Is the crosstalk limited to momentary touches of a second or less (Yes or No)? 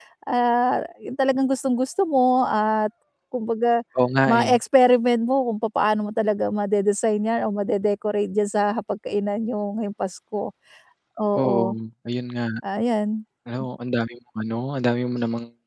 Yes